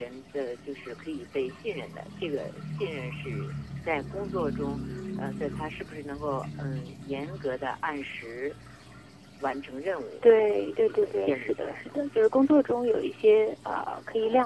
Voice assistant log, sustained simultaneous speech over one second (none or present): present